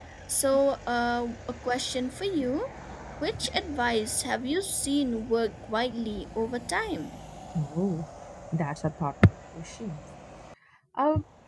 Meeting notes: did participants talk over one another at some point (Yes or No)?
No